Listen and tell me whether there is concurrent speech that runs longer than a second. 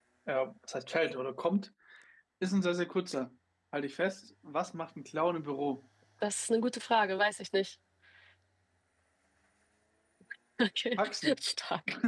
No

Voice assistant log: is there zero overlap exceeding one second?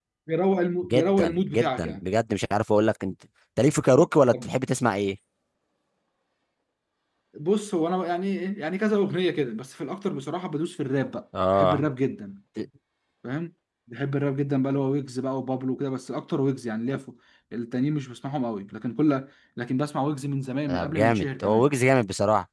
No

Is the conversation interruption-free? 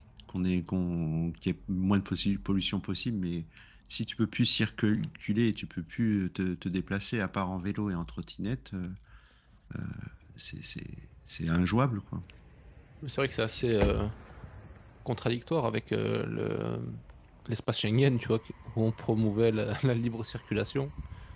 Yes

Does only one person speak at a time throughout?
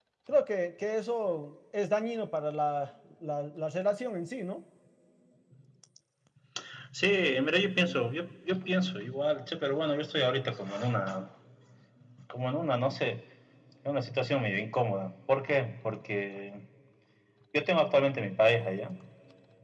Yes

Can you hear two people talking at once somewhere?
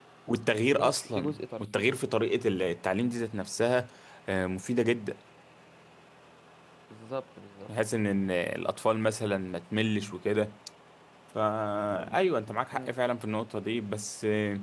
Yes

